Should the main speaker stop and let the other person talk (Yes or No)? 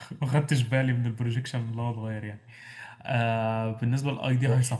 No